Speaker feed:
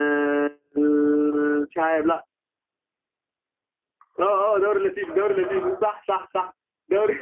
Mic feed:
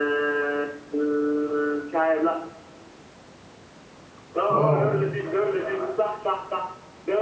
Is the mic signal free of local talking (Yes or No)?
No